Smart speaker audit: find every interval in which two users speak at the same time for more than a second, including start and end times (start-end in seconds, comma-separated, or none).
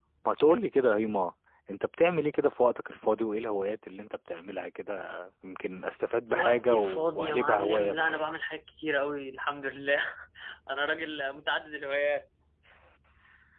6.3-8.3